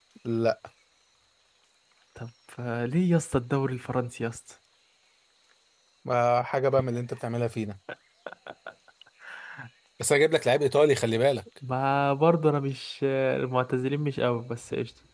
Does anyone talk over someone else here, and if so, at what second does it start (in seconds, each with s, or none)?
none